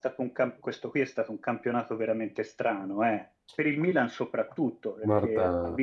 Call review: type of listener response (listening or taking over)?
listening